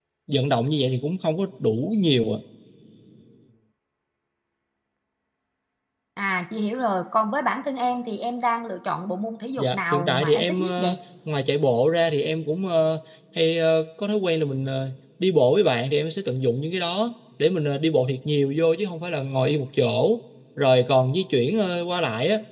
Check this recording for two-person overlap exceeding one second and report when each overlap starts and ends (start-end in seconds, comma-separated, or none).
9.6-11.0